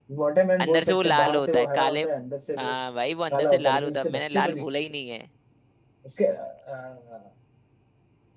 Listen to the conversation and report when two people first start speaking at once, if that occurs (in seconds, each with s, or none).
0.6 s